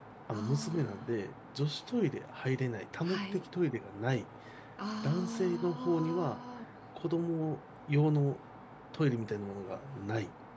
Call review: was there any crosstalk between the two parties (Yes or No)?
Yes